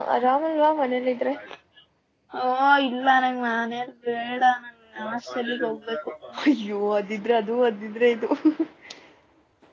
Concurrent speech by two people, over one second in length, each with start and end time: none

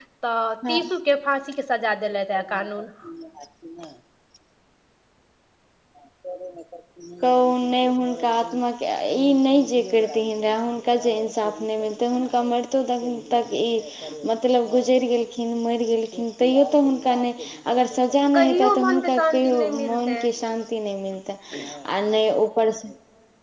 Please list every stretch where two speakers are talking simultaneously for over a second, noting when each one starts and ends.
18.3-20.2

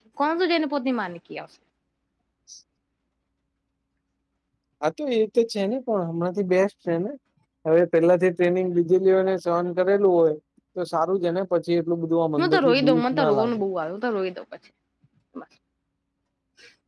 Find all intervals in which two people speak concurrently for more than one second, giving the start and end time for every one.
12.4-13.6

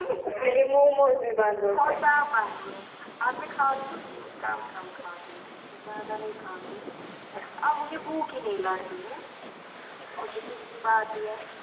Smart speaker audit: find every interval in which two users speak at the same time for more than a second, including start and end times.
none

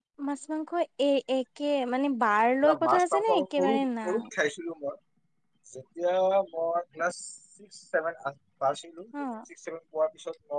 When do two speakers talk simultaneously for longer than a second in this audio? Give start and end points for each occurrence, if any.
2.7-4.0

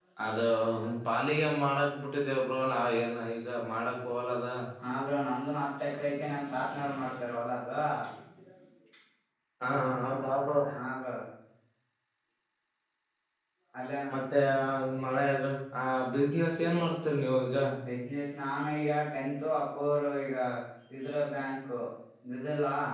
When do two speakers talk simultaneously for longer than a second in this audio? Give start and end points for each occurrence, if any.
none

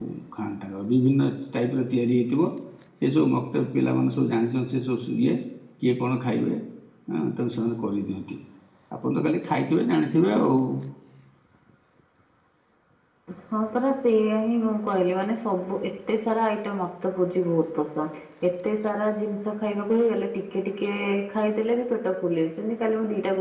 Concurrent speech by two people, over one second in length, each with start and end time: none

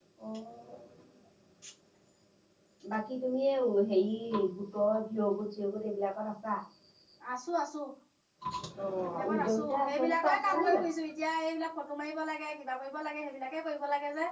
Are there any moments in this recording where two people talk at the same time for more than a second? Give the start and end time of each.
9.0-10.9

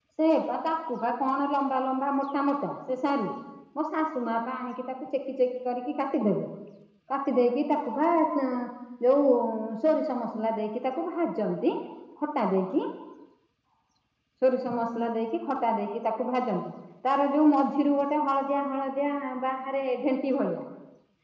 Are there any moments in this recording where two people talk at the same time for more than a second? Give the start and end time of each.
none

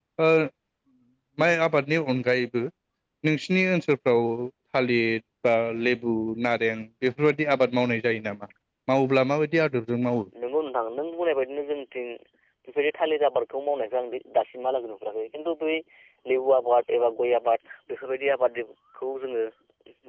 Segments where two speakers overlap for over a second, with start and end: none

